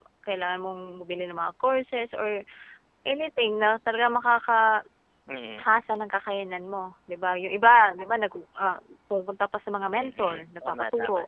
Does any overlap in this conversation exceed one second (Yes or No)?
Yes